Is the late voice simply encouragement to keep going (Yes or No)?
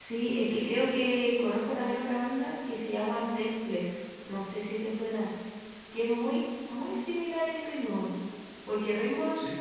Yes